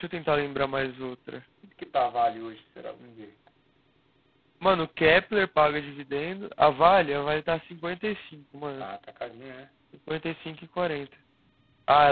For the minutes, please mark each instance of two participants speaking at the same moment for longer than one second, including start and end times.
none

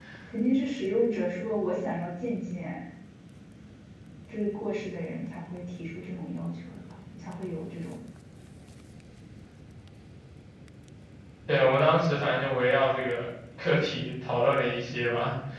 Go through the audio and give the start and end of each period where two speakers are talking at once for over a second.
none

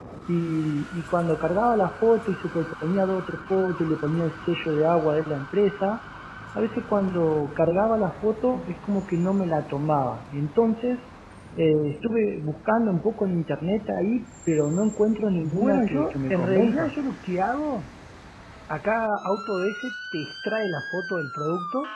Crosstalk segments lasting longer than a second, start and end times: 15.4-16.9

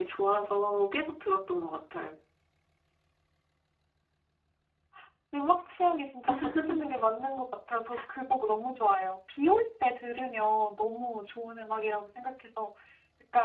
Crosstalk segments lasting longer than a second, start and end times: none

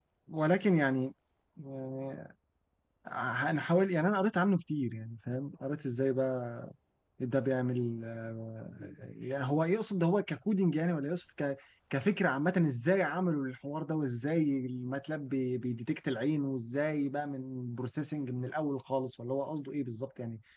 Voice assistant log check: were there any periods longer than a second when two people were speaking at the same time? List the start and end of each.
none

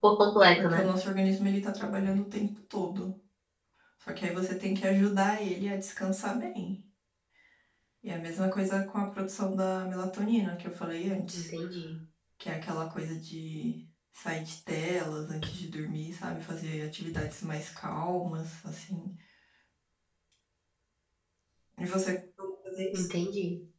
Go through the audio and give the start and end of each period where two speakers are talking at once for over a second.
none

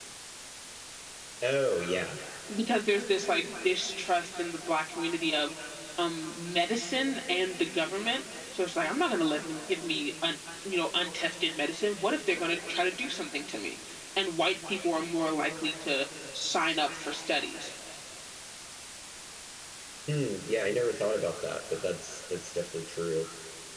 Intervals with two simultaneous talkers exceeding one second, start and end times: none

